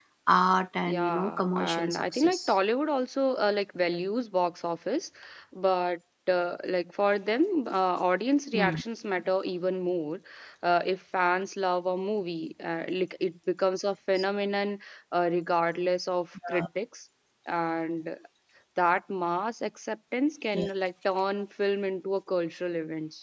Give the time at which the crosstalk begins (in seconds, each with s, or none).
0.9 s